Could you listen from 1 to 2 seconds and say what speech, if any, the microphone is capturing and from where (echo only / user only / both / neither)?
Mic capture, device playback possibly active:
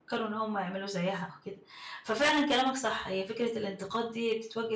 user only